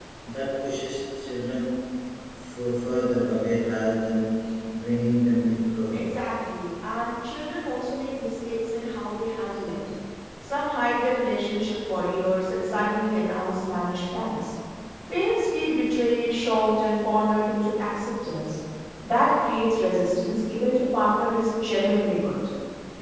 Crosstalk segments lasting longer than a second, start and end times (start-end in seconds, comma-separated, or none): none